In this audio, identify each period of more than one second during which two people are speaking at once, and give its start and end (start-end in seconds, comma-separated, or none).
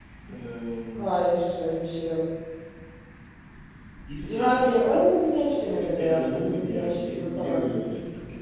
6.0-7.6